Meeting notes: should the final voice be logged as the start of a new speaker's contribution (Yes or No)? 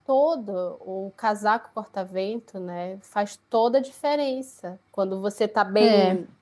No